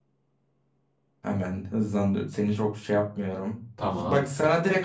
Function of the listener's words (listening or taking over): listening